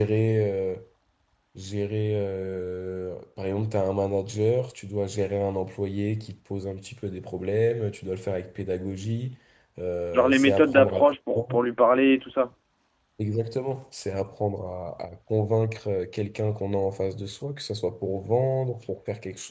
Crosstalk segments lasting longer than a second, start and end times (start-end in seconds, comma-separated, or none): 10.1-11.6